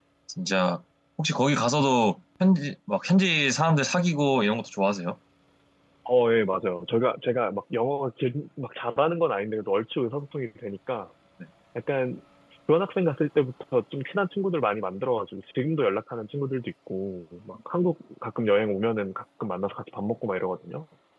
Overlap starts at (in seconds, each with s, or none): none